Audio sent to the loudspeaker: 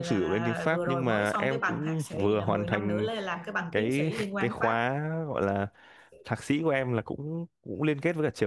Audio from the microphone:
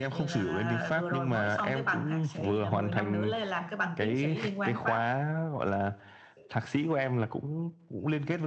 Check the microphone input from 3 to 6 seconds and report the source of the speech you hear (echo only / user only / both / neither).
echo only